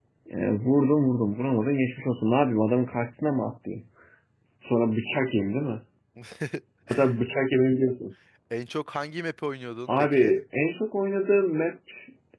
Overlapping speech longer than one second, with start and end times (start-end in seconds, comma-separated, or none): none